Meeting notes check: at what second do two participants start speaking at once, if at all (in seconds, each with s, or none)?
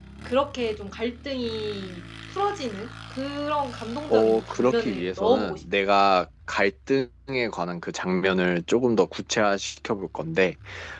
4.1 s